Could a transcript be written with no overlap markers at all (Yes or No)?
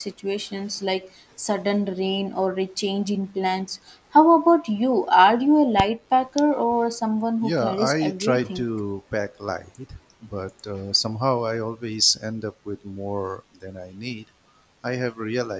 No